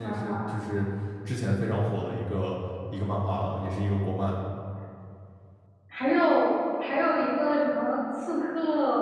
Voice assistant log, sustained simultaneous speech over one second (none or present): none